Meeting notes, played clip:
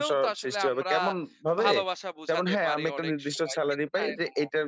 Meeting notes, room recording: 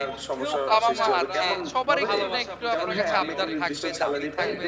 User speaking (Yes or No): Yes